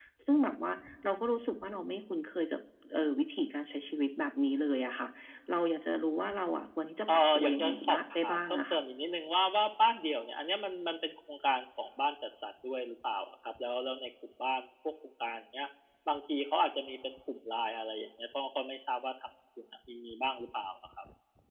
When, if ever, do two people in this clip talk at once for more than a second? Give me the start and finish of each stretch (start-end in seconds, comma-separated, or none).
7.1-8.8